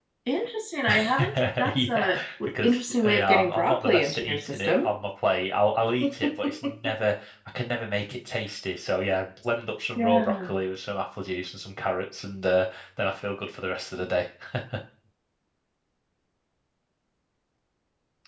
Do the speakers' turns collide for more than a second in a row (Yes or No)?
Yes